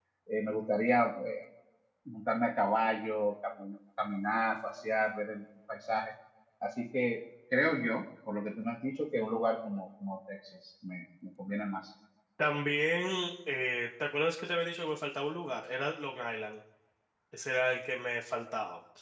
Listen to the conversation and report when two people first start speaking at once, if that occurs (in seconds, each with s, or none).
none